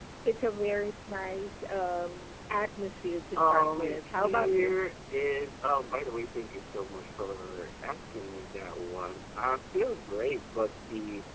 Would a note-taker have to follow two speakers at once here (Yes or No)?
Yes